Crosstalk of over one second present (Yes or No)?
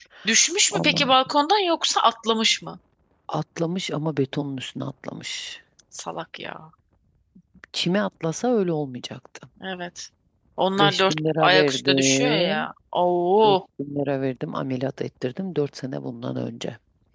Yes